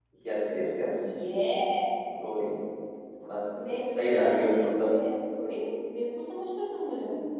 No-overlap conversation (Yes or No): No